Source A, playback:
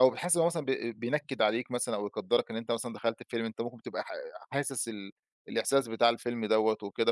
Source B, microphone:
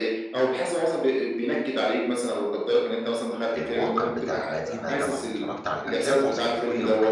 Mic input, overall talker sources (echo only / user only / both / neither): both